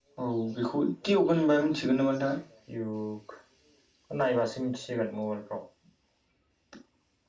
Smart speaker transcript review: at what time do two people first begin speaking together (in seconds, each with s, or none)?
none